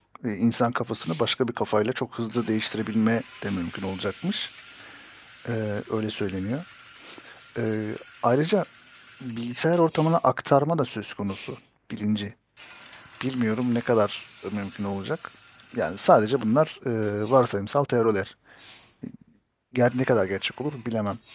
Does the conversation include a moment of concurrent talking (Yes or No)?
No